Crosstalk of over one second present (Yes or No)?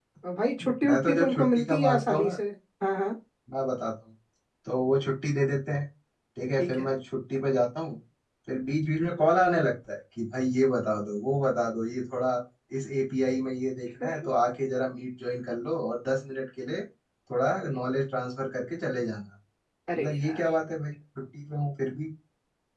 Yes